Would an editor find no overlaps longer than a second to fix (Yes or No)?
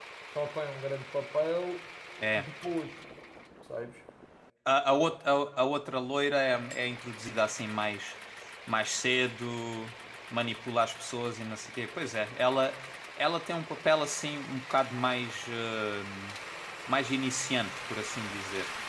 Yes